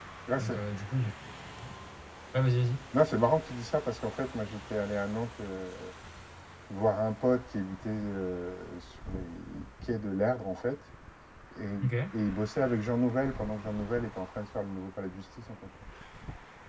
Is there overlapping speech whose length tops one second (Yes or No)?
No